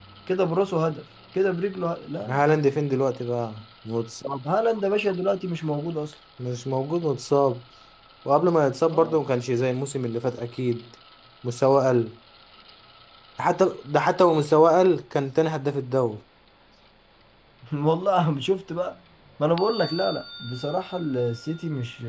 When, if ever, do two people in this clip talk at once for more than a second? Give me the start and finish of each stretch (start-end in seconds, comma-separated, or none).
none